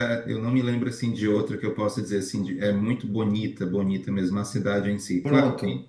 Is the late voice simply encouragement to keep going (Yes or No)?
Yes